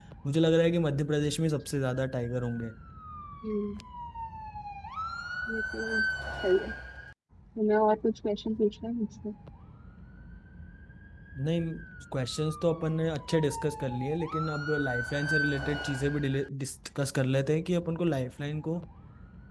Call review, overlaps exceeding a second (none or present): none